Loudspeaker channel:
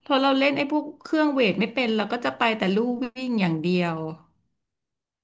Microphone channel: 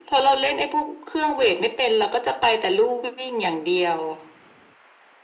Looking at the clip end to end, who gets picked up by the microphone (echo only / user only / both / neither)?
echo only